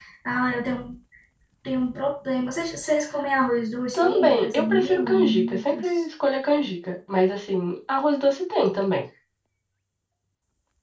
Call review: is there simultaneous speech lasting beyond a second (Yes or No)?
Yes